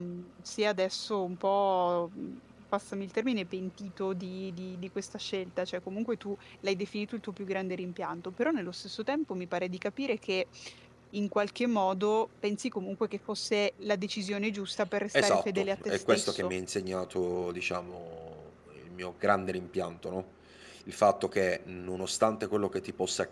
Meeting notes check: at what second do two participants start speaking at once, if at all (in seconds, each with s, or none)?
15.1 s